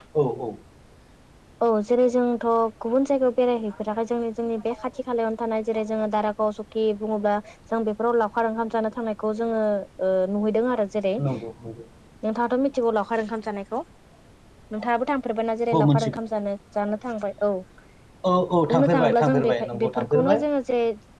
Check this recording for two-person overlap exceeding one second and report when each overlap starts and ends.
18.7-20.4

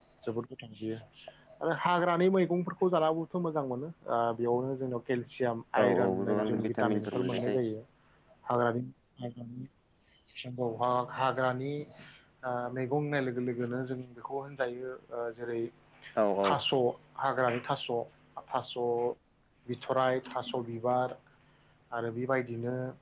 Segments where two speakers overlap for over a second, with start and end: 6.0-7.6

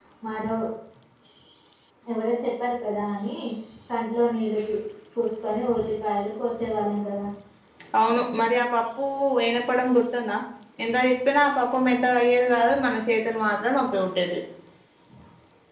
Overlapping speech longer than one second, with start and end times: none

